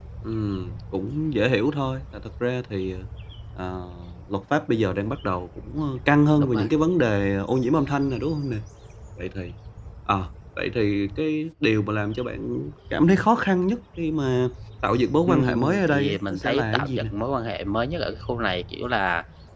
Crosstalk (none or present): present